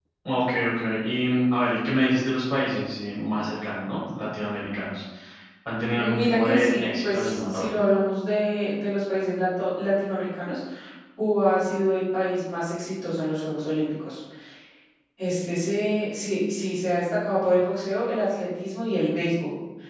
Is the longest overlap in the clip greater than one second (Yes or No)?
Yes